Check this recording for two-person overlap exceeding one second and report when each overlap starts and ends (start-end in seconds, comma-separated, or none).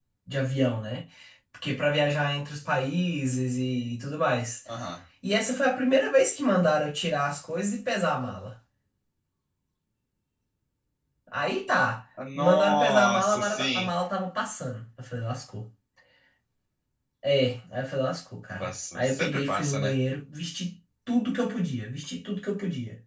12.3-13.9, 18.6-19.9